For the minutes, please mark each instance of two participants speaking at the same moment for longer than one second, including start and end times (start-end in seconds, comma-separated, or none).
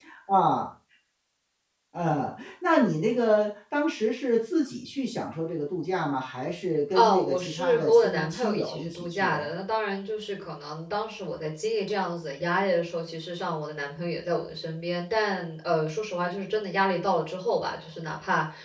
6.9-9.5